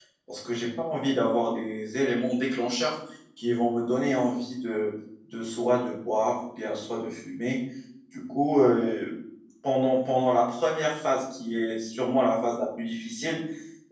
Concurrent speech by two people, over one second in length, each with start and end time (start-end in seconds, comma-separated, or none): none